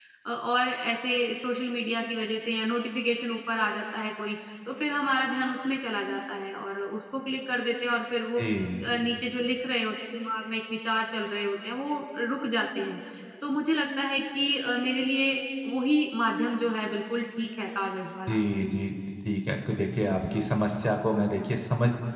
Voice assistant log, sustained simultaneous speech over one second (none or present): none